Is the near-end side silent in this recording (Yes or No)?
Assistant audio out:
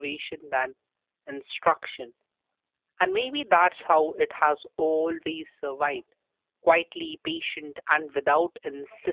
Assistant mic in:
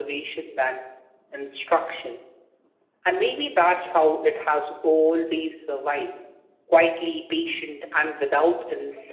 Yes